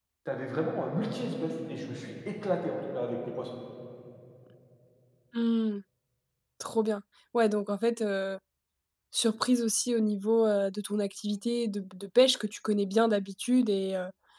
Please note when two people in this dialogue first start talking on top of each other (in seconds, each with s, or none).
none